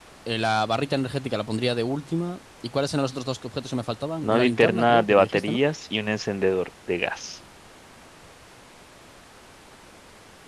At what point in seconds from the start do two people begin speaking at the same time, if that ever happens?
4.2 s

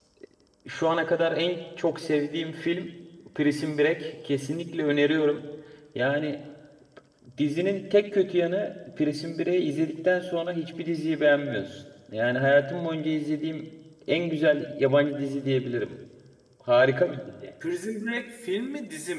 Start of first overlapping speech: none

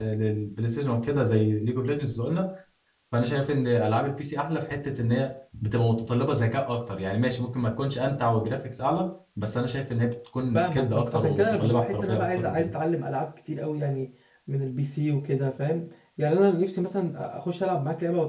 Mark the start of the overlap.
10.5 s

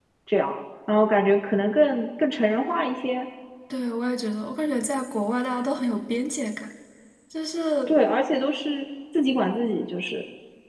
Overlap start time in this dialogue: none

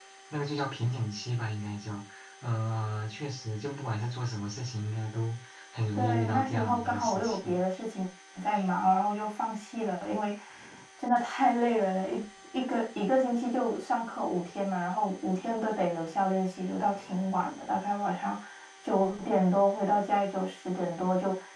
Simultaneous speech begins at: 6.0 s

